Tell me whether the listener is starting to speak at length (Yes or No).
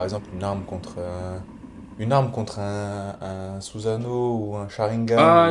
Yes